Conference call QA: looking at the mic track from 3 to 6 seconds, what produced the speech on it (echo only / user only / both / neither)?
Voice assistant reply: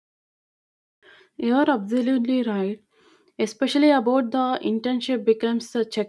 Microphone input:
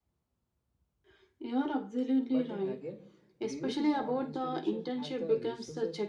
both